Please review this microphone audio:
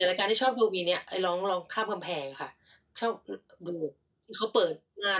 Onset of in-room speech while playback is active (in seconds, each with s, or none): none